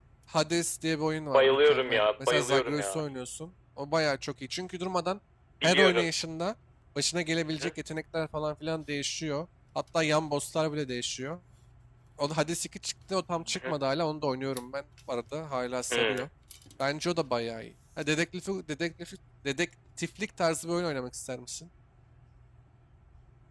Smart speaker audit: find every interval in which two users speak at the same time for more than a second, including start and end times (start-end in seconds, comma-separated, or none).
1.3-3.0